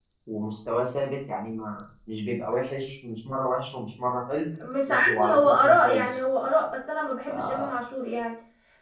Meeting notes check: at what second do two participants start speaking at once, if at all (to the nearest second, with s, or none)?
5 s